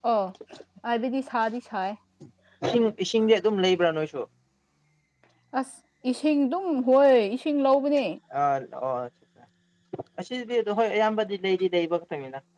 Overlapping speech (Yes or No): No